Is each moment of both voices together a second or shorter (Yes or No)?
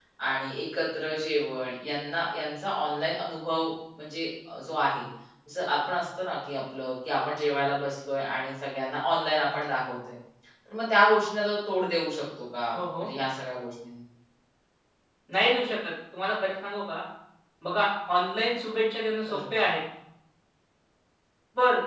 Yes